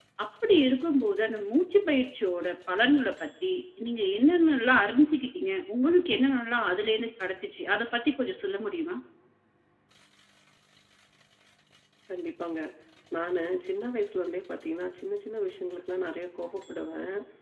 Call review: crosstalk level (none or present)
none